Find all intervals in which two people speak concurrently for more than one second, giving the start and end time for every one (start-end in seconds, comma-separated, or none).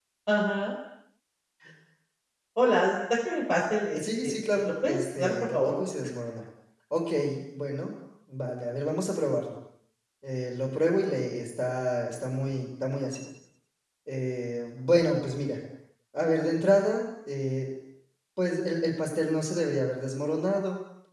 3.9-5.8